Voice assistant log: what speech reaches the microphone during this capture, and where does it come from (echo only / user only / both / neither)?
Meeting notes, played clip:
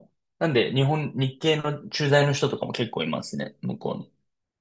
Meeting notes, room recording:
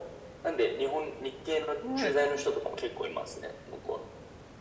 both